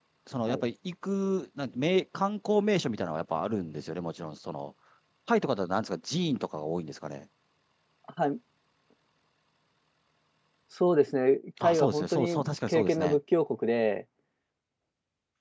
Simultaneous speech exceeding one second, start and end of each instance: 11.6-13.2

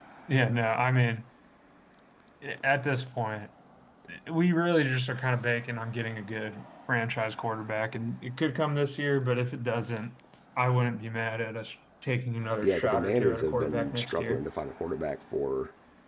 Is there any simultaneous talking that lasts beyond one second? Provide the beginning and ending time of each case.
12.6-14.4

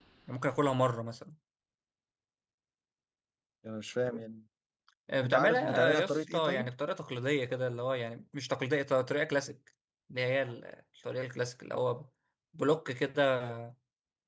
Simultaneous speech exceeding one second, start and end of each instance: 5.2-6.7

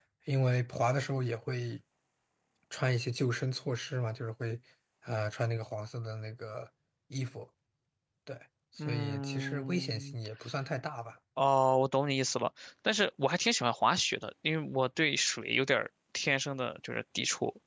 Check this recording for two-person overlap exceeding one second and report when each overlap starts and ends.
8.9-10.2

